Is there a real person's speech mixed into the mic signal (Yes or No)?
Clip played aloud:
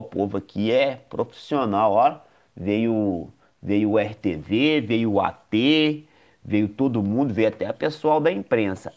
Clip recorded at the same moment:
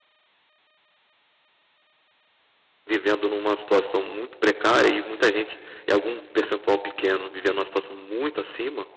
Yes